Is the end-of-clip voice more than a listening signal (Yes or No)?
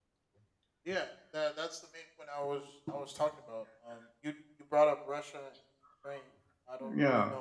No